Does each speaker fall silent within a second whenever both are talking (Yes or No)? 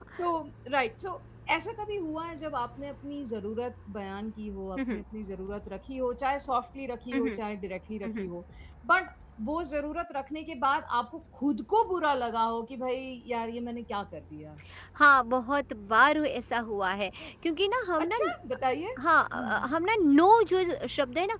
Yes